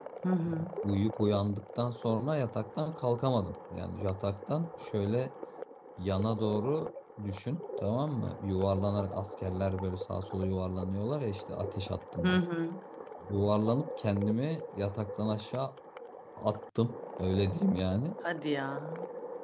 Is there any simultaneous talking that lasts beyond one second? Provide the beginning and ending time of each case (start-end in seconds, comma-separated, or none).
none